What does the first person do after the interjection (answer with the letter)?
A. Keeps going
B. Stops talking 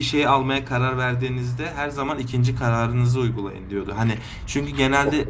A